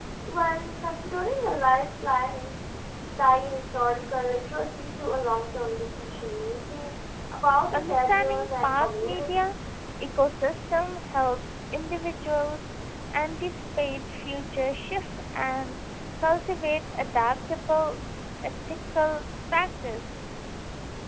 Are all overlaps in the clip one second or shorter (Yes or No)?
No